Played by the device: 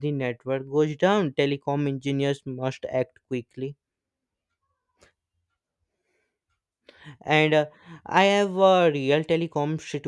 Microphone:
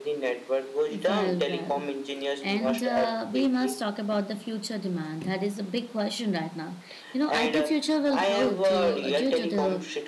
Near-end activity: present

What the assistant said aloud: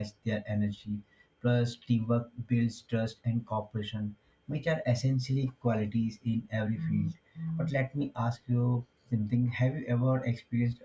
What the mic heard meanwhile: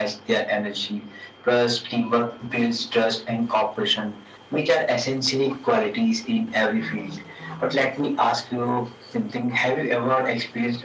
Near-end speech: none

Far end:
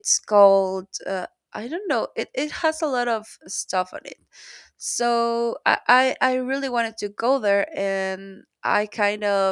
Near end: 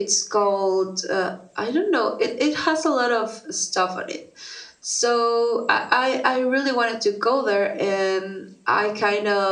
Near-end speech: none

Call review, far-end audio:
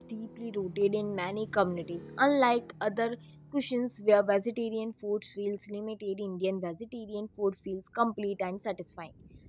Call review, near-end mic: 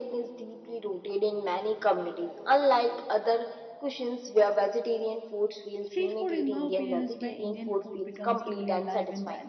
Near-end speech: present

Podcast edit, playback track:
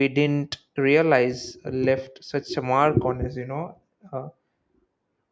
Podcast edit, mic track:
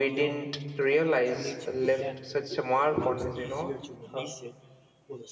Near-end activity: present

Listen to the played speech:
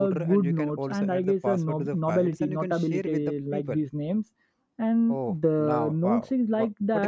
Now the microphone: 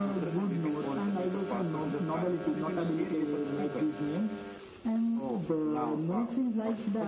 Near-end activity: none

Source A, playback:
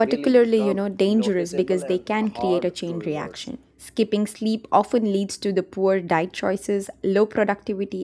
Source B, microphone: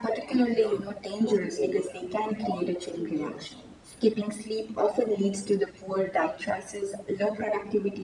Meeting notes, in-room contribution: none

